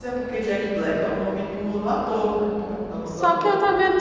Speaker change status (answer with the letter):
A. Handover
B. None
A